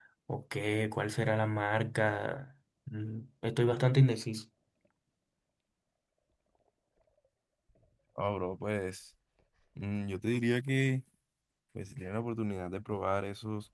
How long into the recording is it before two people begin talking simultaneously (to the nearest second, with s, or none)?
none